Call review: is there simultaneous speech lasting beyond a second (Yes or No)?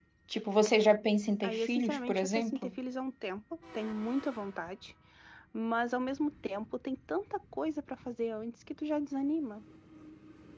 Yes